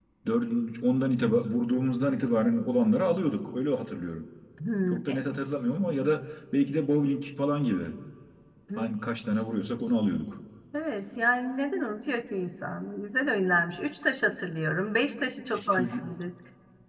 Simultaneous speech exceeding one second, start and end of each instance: none

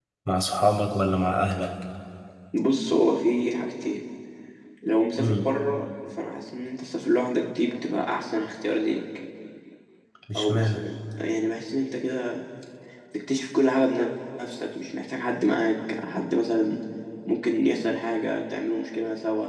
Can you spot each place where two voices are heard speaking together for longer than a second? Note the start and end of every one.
none

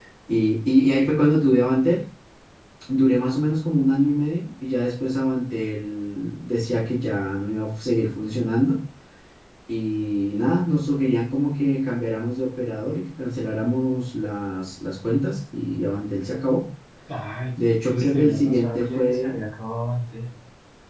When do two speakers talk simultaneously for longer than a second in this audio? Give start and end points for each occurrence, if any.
17.6-19.4

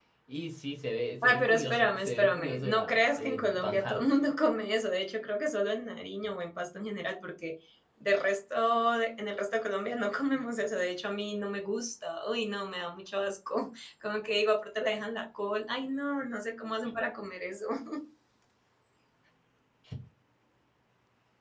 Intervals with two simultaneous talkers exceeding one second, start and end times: 1.2-4.0

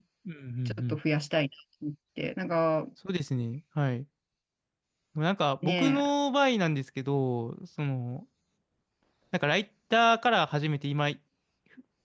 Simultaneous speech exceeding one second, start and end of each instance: none

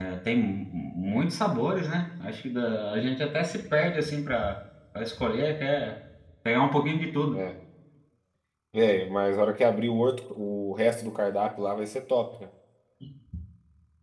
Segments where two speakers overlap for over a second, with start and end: none

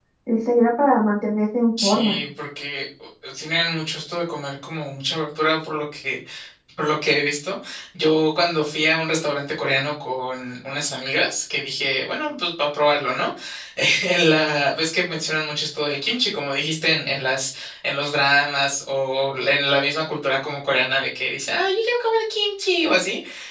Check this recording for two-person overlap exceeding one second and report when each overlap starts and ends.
none

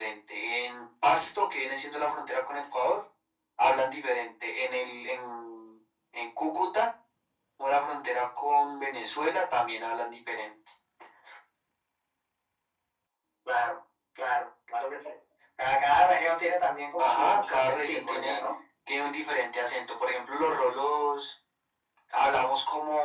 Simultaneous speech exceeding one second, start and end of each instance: 17.0-18.4

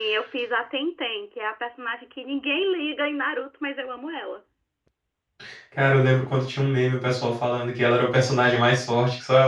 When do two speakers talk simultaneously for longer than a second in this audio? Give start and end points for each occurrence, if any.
none

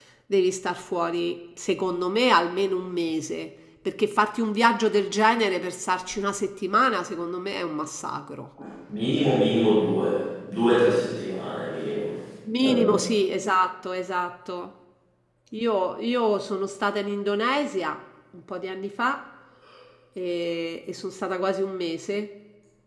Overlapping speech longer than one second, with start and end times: none

